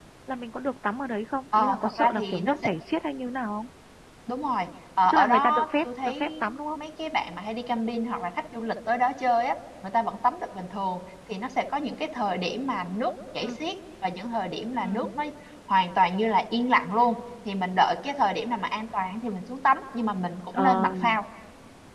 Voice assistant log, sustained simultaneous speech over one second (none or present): present